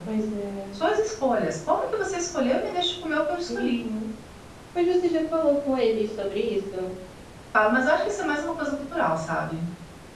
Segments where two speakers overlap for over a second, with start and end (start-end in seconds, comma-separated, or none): none